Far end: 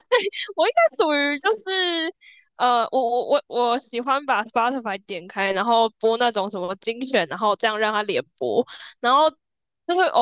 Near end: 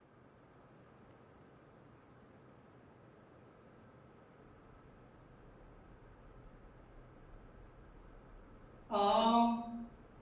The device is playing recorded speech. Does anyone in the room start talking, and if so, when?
8.9 s

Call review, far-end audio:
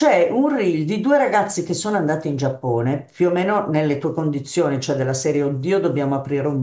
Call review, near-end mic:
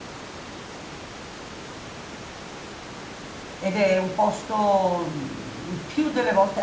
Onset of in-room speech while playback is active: 3.6 s

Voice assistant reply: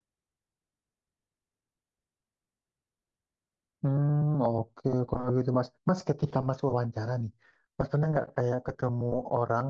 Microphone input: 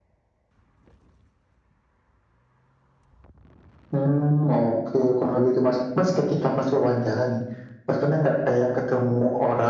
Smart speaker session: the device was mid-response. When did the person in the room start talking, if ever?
none

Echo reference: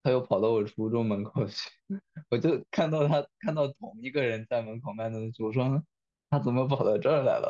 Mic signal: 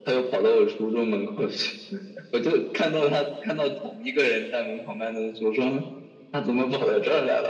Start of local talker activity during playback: none

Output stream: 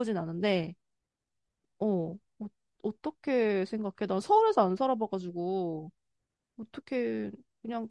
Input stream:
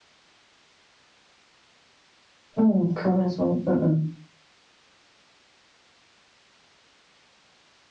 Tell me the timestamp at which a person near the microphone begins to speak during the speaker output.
2.6 s

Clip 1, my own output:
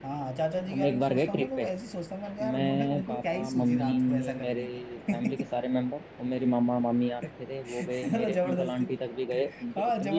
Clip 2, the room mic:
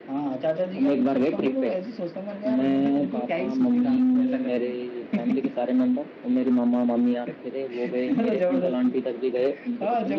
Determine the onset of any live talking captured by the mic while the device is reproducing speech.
none

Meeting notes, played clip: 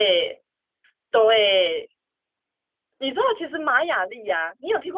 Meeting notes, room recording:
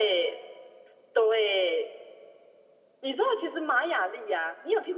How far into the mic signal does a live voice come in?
none

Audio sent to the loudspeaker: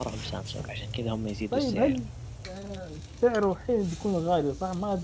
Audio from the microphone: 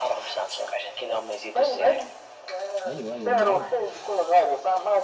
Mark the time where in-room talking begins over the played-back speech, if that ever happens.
2.9 s

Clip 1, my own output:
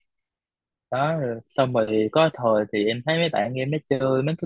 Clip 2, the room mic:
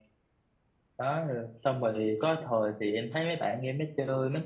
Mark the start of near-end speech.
none

